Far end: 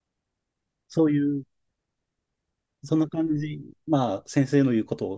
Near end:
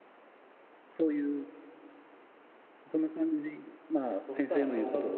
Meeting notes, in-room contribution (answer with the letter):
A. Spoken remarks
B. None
A